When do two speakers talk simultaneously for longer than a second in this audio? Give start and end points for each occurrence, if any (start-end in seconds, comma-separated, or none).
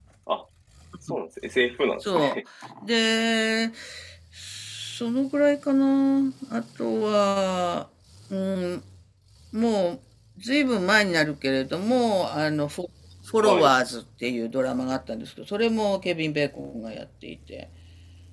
none